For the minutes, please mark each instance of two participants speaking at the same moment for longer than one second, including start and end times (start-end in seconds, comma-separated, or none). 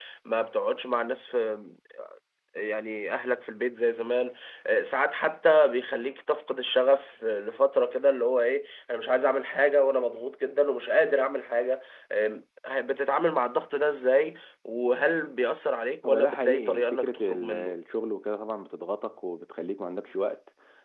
16.1-17.8